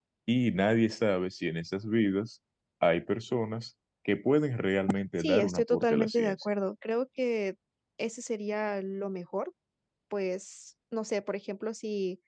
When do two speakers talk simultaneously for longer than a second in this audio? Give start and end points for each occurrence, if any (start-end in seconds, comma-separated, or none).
5.2-6.4